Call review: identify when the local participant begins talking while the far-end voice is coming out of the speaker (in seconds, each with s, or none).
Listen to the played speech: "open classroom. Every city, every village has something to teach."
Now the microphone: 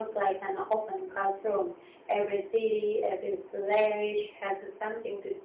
none